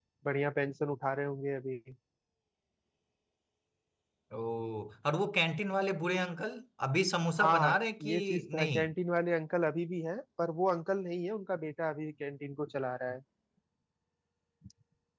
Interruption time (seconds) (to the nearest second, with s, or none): 7 s